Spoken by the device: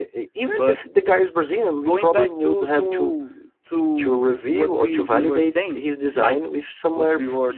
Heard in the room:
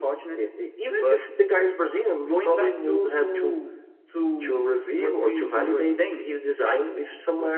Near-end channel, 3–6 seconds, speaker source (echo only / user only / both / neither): echo only